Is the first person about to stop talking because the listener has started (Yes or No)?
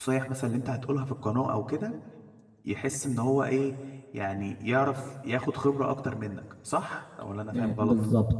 Yes